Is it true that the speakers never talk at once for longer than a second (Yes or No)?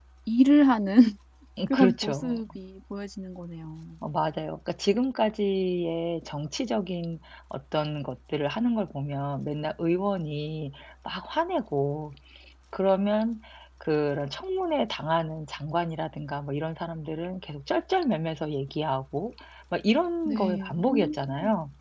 No